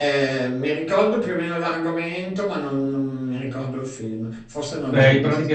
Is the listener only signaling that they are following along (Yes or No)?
No